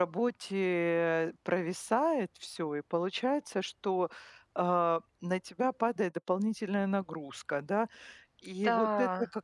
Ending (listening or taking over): listening